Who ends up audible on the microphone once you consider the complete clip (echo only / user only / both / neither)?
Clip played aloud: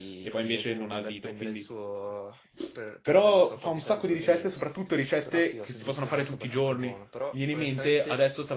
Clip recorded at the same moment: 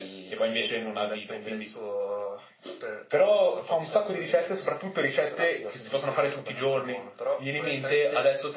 echo only